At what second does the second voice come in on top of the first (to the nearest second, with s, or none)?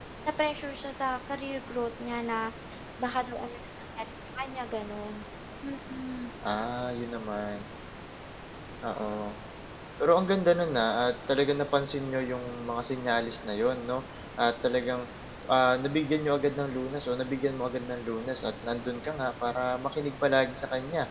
none